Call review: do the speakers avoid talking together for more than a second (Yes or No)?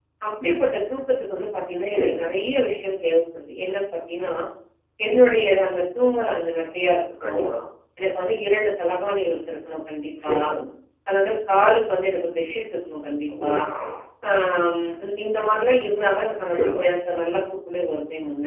Yes